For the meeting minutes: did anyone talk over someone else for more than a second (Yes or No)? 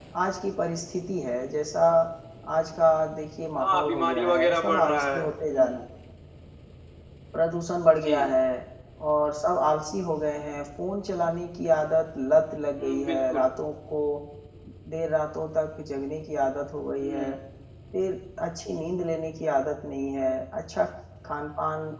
Yes